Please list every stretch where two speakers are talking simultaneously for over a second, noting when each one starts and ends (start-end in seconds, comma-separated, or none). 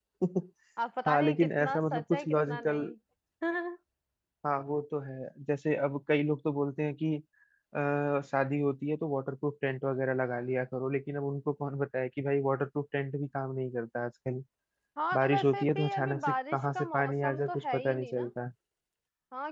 1.1-2.8, 15.1-18.3